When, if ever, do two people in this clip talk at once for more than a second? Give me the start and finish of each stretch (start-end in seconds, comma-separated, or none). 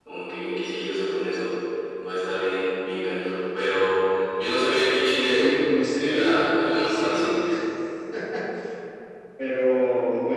5.3-7.4